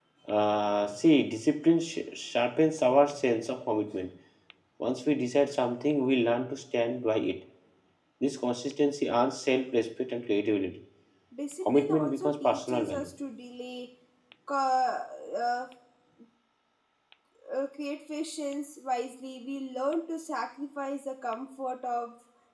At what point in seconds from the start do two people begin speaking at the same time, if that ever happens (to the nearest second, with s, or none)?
12 s